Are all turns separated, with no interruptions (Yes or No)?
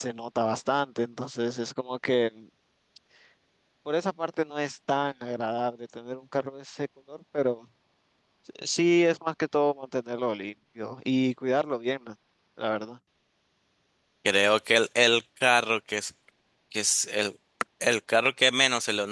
Yes